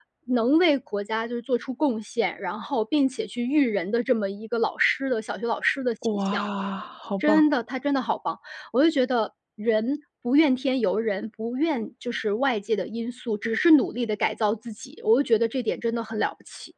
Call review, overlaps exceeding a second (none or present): none